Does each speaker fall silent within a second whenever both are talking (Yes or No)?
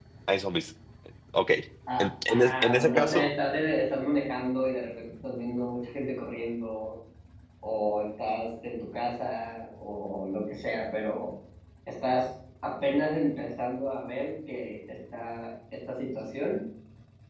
No